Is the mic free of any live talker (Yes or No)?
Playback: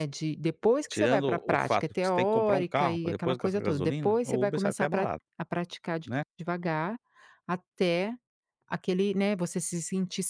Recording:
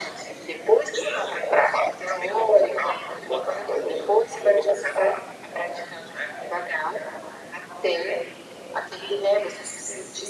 Yes